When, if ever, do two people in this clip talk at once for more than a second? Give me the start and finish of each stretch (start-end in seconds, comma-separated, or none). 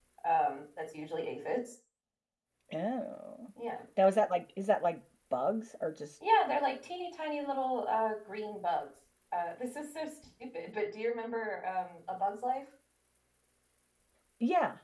none